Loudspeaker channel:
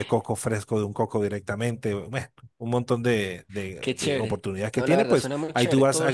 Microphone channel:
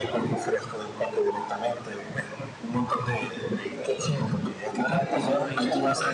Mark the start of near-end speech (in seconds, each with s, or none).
5.1 s